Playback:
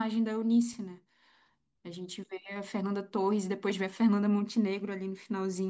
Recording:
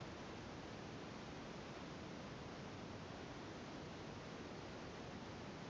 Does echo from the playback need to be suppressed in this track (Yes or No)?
No